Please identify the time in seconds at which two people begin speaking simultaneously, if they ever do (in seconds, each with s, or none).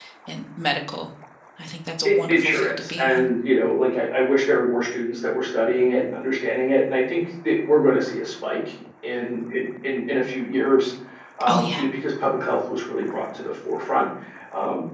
2.0 s